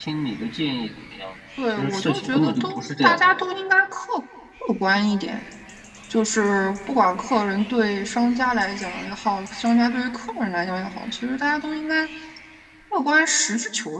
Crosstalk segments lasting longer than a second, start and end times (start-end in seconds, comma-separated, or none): 1.7-3.2